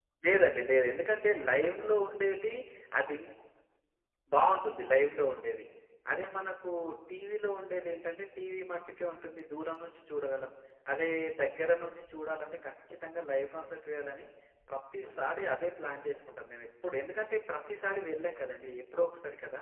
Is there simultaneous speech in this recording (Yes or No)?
No